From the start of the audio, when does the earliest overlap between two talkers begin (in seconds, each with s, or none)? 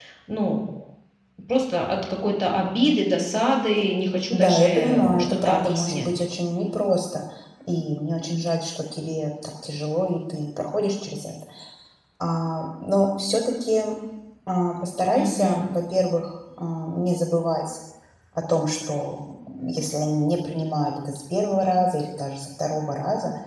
4.3 s